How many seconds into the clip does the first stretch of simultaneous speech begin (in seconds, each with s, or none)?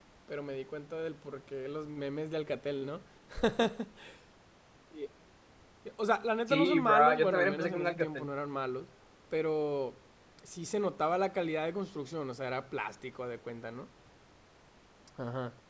6.5 s